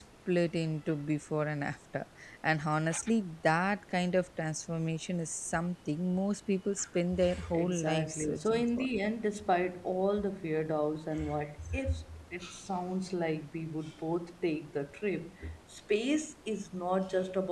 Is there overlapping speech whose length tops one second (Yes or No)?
Yes